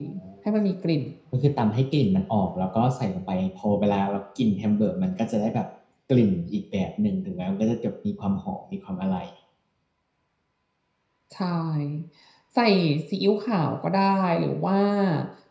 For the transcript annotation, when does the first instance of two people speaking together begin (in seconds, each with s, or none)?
none